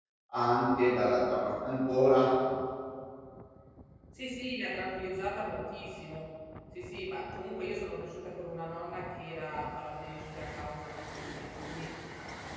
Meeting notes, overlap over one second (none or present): none